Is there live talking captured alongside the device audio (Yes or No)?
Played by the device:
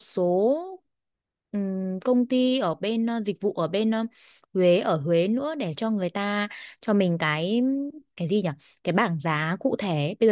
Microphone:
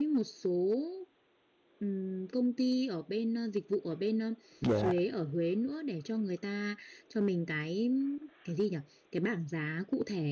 Yes